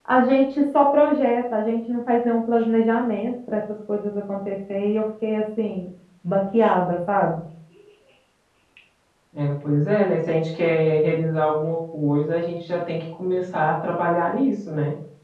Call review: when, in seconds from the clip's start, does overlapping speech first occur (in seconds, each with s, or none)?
none